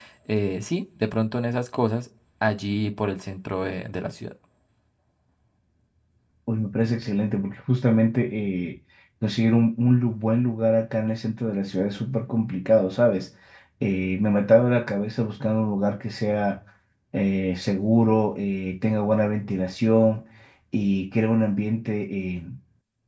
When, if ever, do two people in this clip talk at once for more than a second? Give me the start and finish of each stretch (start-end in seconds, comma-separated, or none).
none